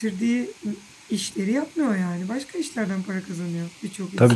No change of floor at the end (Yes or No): No